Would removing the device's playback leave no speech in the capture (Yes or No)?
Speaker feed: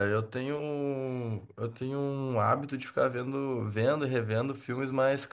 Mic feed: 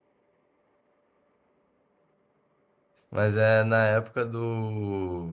No